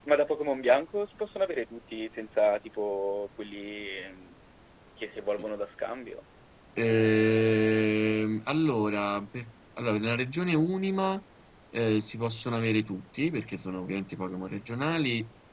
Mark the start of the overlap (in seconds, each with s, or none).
none